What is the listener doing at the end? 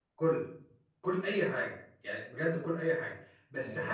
listening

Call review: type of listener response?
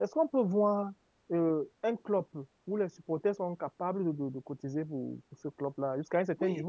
taking over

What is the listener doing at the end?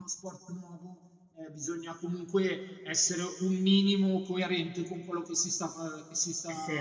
listening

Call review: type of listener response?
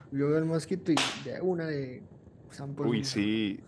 taking over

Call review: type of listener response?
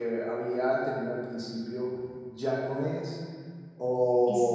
listening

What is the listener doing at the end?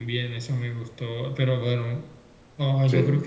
listening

